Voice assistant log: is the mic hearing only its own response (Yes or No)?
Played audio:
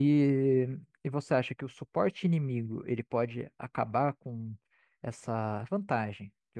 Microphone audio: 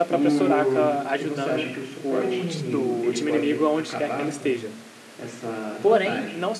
No